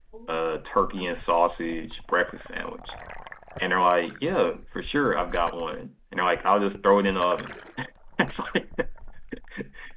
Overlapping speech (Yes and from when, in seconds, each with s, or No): No